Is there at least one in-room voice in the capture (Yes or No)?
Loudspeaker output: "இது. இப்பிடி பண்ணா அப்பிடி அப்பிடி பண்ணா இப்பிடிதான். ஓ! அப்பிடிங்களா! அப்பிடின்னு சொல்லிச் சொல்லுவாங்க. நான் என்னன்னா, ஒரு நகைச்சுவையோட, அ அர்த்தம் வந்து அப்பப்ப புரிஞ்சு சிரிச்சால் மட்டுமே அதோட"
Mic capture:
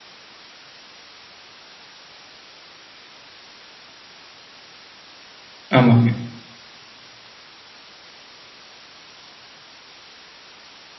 Yes